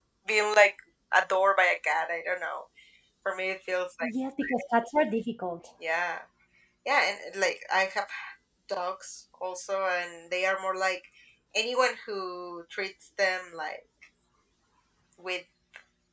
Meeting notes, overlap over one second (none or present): none